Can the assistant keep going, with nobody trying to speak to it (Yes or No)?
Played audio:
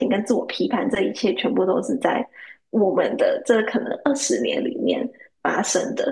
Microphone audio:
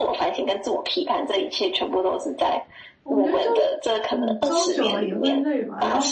No